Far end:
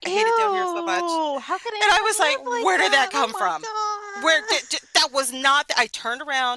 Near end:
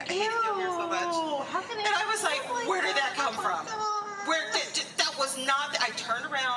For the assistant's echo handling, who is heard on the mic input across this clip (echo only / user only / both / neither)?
echo only